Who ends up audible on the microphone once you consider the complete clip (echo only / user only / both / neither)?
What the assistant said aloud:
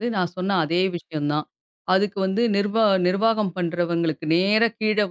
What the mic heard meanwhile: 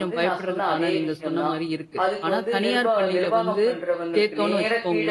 both